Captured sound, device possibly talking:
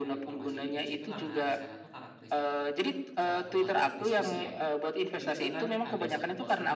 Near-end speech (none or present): present